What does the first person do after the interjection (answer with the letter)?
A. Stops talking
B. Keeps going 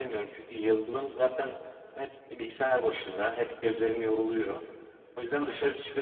B